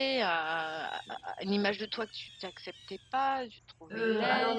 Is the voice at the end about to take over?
Yes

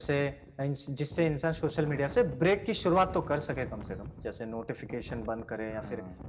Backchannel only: Yes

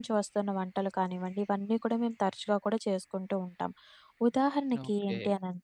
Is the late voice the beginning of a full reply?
No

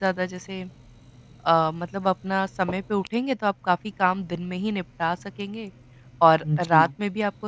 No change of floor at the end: Yes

